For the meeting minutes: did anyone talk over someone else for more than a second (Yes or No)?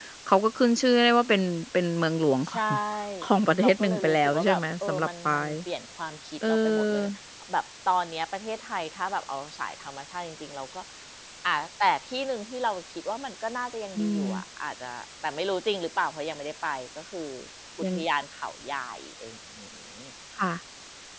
Yes